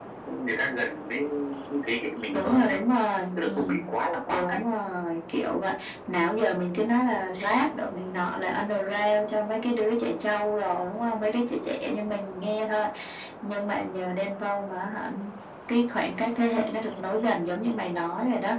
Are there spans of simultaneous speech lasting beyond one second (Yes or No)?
No